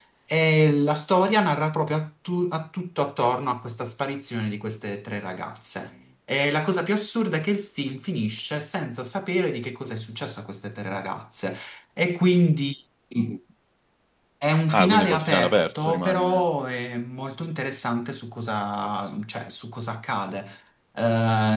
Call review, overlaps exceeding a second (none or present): present